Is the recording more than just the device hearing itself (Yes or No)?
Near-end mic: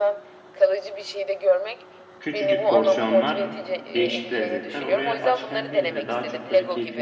Yes